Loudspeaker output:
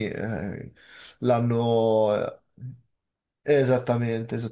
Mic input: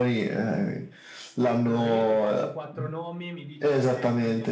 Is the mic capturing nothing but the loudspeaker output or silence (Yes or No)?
No